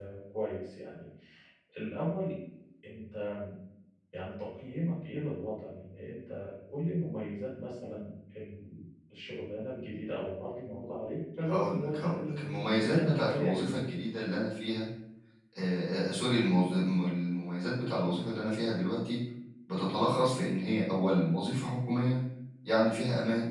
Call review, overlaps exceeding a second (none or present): present